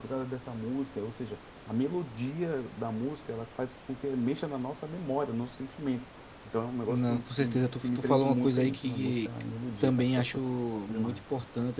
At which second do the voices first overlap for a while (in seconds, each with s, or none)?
6.9 s